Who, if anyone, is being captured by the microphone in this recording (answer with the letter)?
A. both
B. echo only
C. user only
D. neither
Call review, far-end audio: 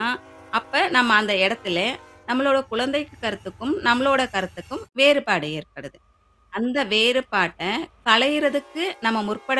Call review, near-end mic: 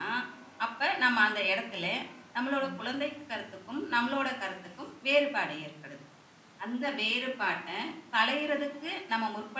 A